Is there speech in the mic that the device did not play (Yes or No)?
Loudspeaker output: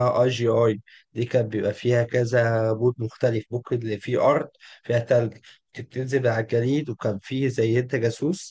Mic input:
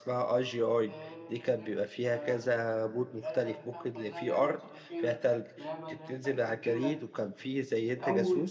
Yes